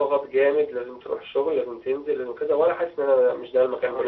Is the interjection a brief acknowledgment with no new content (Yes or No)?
No